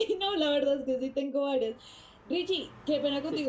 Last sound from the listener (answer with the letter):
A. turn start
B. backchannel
B